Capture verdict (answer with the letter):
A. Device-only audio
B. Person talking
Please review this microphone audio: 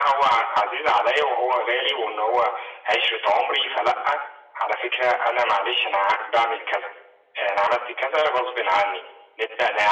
A